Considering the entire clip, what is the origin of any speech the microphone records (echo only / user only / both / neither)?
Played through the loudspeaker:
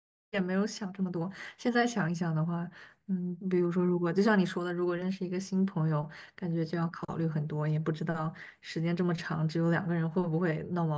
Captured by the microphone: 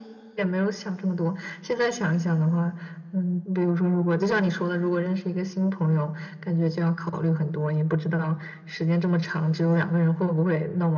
echo only